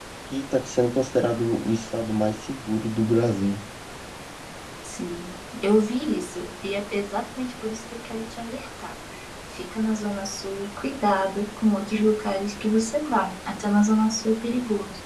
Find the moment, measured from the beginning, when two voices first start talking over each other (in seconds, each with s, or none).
none